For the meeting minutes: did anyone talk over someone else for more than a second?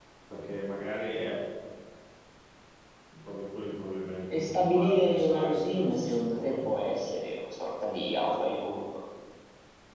Yes, from 4.3 s

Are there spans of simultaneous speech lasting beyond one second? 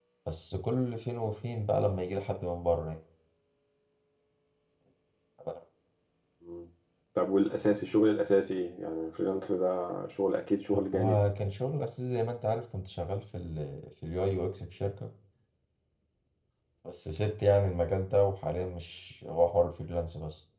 No

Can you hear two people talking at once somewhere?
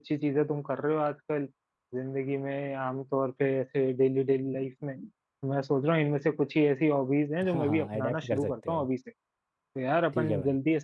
Yes, from 7.5 s

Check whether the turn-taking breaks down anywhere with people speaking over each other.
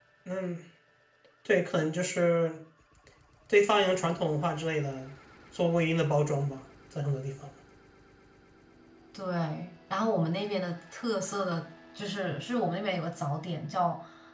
No

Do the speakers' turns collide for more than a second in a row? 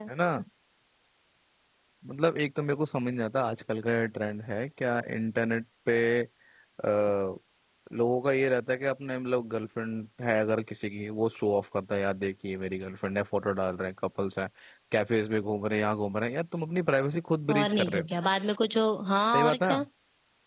No

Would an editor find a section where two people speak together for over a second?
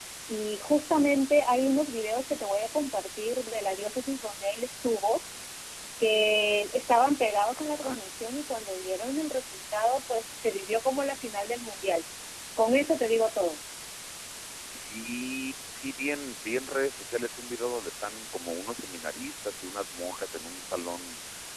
No

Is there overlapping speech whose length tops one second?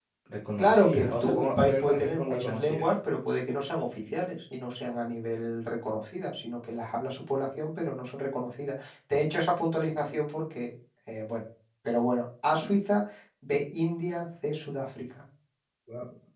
Yes, from 0.6 s

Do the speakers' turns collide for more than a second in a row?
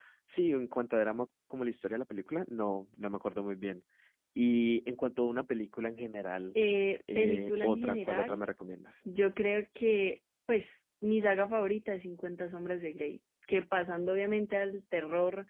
Yes, from 7.2 s

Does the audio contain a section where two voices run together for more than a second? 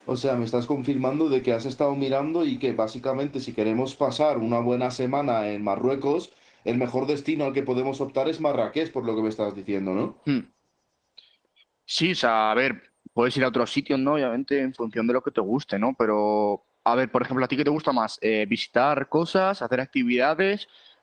No

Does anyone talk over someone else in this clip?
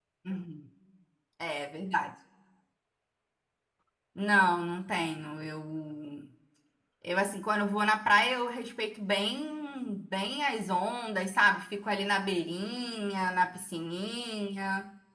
No

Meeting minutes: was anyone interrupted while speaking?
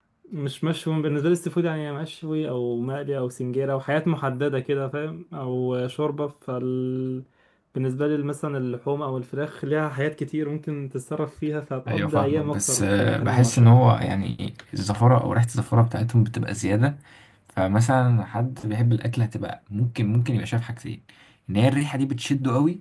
Yes, from 11.9 s

